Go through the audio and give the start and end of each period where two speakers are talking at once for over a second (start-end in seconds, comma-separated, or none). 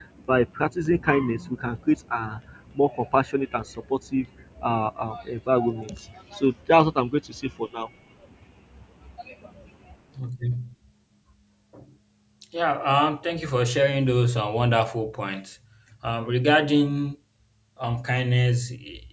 none